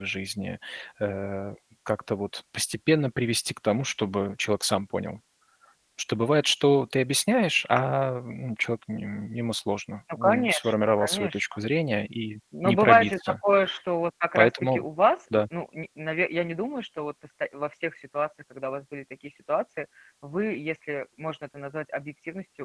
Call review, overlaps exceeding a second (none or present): present